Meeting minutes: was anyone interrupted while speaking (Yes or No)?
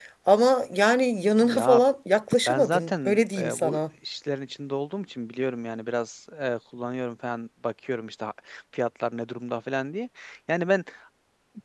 Yes